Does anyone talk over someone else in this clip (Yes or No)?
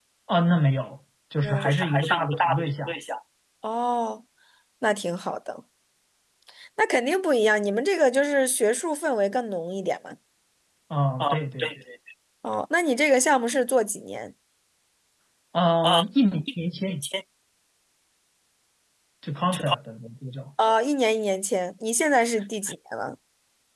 Yes